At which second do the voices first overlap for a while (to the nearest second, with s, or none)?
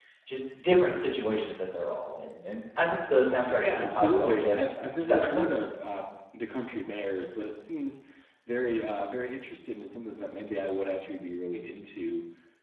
3 s